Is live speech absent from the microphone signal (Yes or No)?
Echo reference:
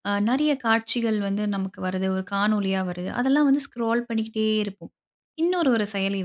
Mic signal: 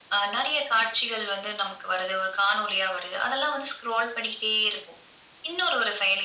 Yes